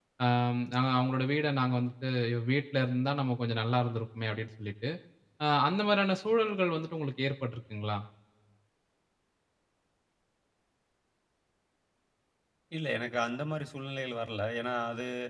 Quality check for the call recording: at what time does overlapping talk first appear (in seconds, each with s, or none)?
none